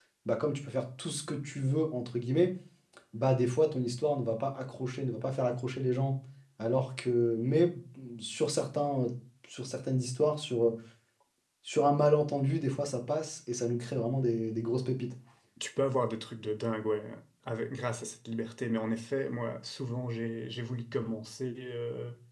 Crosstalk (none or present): none